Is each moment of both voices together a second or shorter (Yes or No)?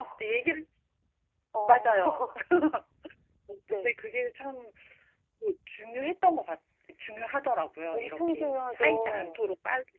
No